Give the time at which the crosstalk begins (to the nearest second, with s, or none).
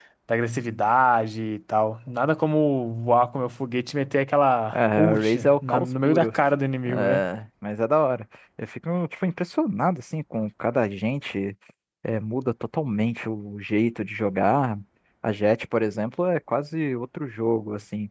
5 s